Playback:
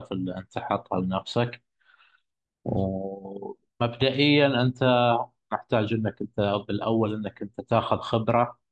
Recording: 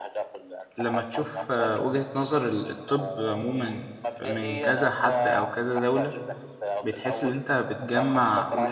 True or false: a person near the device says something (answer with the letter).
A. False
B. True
B